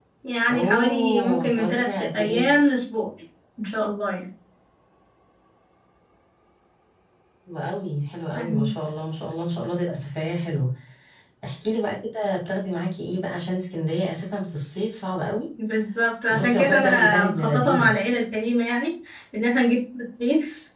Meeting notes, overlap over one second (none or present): present